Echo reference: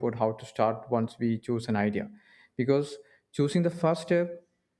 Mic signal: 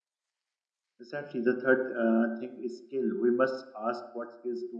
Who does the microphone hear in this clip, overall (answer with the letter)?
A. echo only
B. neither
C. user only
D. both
C